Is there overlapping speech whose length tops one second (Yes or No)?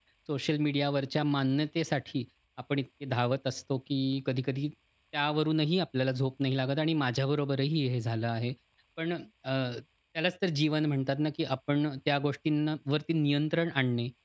No